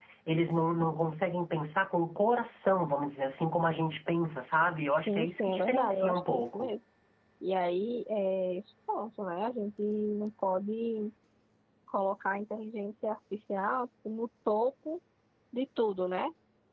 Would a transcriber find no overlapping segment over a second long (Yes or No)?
No